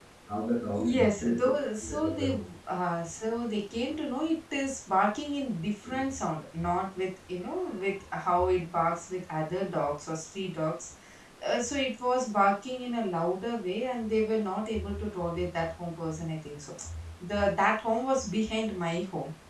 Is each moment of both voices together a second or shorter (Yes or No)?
No